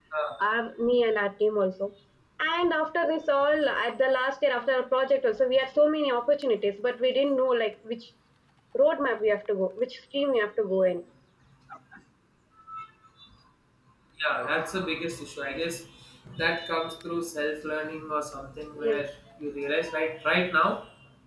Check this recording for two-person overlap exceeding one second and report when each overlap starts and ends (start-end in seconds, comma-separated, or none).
none